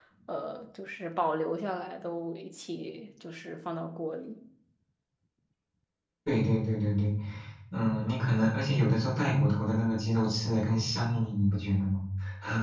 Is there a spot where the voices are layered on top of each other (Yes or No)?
No